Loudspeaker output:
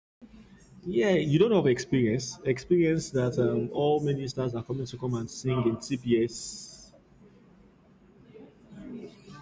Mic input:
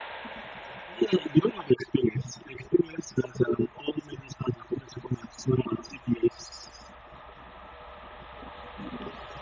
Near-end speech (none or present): none